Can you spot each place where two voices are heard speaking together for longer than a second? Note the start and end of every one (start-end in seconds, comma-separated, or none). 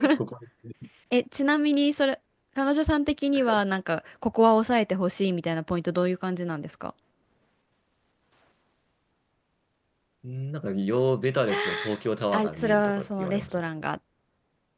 12.3-13.7